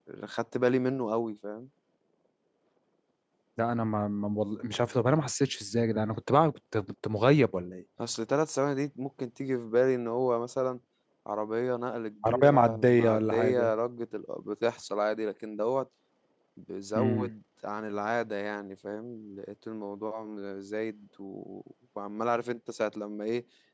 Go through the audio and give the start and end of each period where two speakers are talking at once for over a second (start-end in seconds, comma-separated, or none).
12.3-13.7